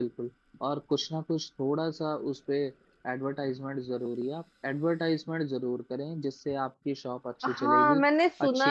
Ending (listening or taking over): taking over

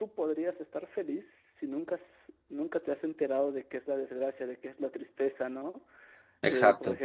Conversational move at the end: listening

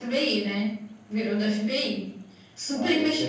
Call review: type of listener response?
taking over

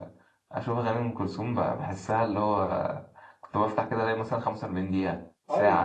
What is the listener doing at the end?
taking over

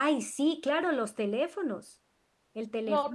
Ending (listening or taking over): listening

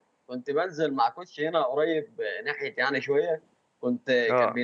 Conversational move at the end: listening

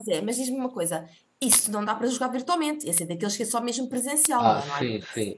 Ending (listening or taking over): taking over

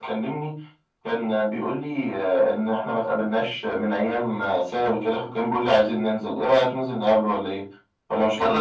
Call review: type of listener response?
taking over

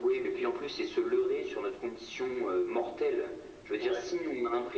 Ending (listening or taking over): listening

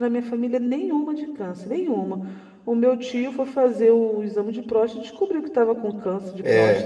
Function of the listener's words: taking over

